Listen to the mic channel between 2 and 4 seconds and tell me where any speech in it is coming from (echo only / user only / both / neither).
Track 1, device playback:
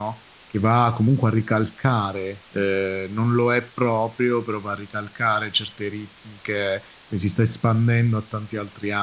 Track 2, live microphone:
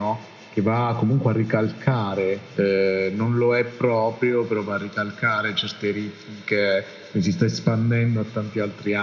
echo only